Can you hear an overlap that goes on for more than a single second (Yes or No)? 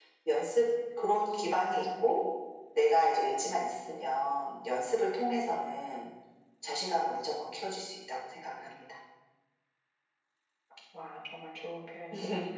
No